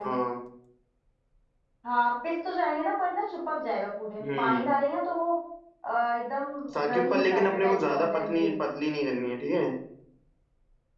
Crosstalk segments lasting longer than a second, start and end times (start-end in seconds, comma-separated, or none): 6.9-8.6